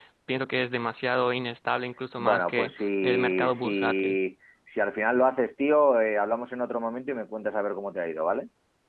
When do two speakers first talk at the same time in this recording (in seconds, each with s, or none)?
2.2 s